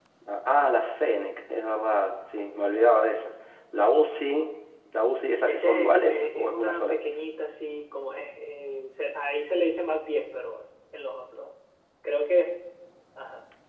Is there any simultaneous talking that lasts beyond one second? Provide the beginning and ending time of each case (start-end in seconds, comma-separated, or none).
5.5-7.0